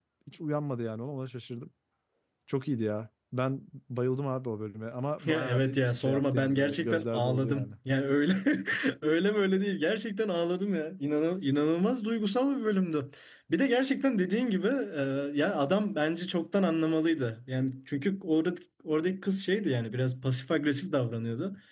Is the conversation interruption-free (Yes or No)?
No